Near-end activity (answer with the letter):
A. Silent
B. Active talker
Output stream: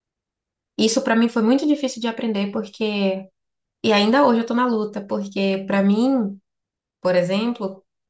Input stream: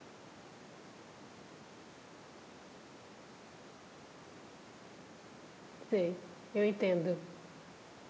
B